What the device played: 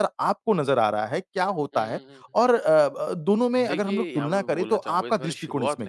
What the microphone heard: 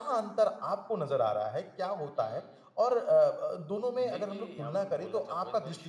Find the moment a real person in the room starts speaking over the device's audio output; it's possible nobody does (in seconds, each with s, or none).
none